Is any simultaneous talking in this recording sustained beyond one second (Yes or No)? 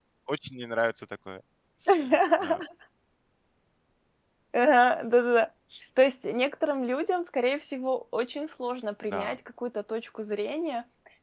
No